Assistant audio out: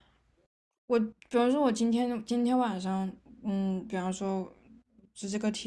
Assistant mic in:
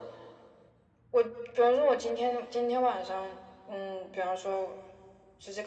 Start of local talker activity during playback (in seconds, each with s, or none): none